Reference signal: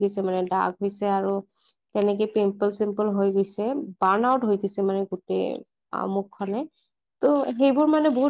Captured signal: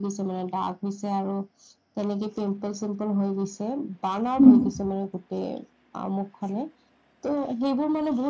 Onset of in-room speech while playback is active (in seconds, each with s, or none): 4.4 s